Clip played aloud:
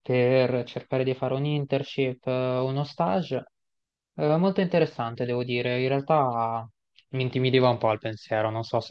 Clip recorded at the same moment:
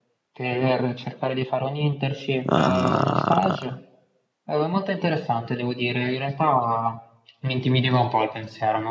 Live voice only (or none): Ah,